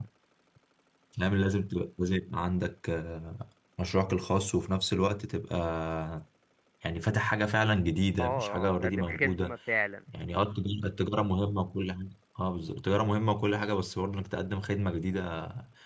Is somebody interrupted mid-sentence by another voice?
Yes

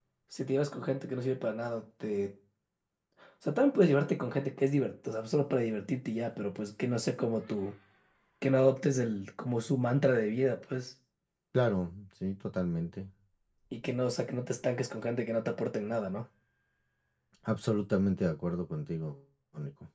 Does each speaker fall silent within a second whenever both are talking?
Yes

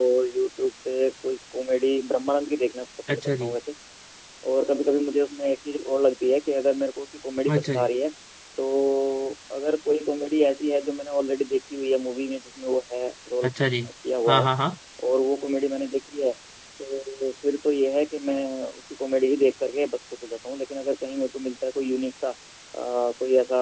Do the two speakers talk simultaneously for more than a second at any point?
No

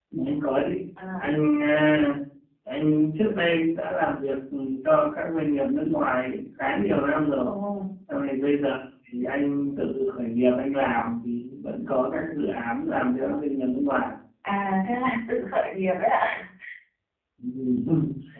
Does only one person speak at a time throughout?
Yes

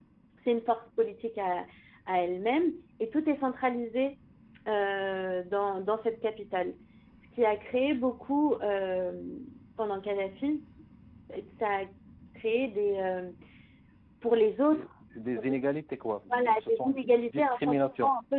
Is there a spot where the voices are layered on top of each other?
Yes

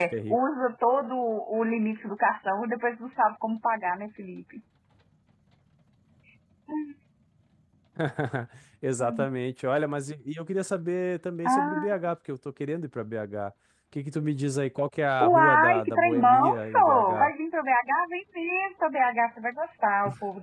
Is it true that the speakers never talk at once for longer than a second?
No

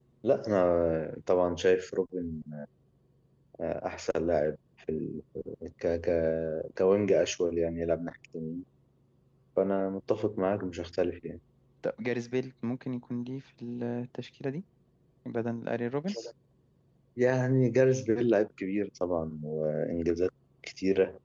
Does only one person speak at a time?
Yes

